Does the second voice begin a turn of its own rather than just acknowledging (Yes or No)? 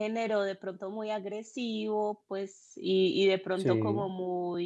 No